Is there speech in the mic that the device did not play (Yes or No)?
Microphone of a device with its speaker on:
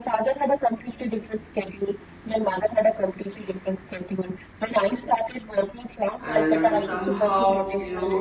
Yes